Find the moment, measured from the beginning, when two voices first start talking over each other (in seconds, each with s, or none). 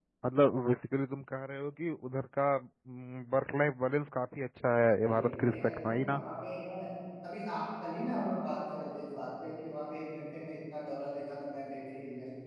5.0 s